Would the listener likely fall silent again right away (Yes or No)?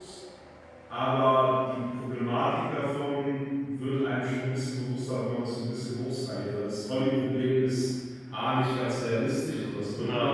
Yes